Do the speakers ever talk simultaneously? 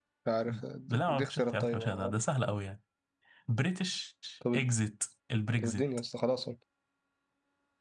Yes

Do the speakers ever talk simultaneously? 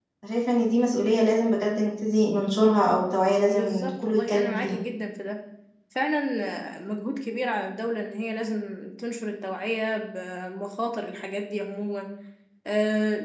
Yes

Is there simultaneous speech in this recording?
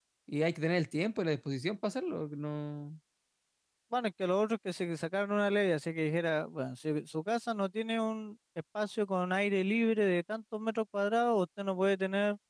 No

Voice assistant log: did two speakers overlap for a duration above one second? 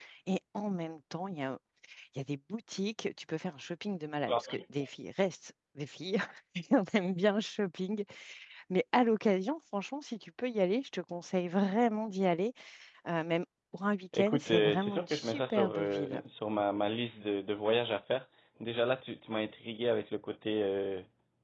Yes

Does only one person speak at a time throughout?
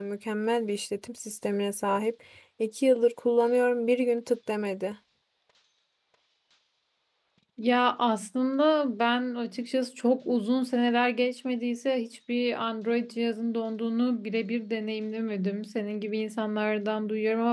Yes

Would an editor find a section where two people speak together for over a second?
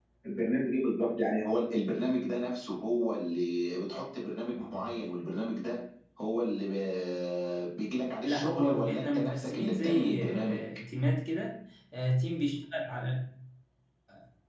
Yes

